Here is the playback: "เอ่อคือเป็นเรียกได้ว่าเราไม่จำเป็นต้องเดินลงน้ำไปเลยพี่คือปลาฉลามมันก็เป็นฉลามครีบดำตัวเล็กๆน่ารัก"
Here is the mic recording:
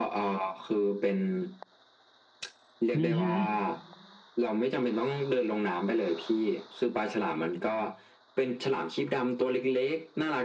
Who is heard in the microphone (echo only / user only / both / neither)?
both